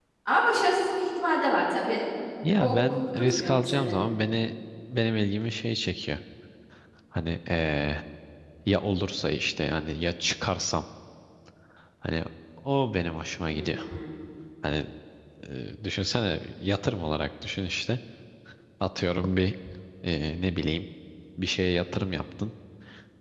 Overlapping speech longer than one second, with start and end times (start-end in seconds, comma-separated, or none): 2.6-4.0